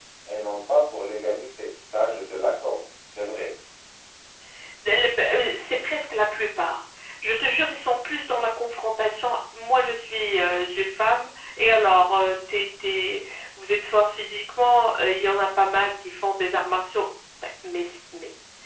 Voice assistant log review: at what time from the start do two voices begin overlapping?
none

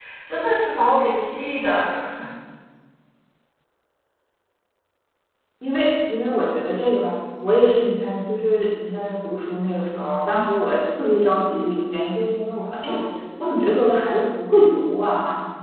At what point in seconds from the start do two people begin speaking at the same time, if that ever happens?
none

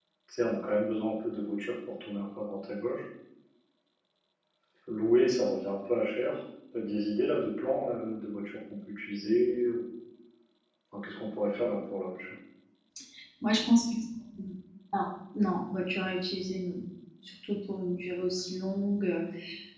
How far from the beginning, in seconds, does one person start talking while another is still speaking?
none

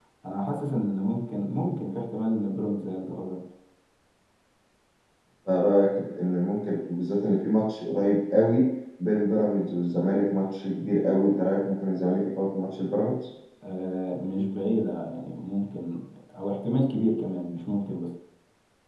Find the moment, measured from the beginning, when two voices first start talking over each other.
none

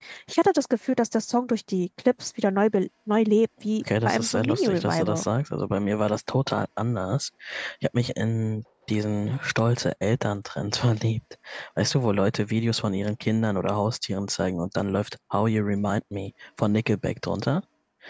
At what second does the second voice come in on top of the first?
3.8 s

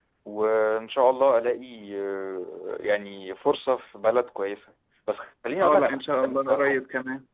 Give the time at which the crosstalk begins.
5.6 s

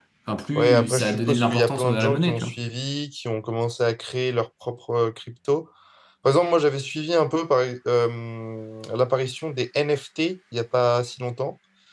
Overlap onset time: 0.6 s

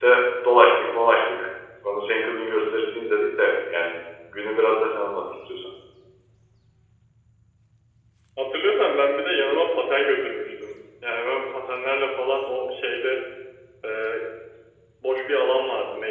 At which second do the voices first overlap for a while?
none

